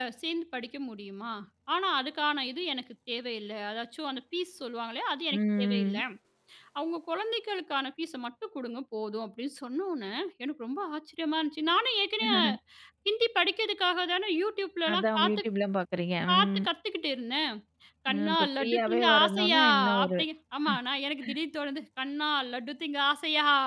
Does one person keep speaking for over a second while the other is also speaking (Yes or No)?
Yes